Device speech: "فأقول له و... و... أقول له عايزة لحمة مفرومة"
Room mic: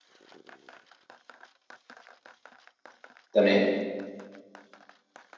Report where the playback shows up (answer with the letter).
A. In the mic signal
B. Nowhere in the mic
B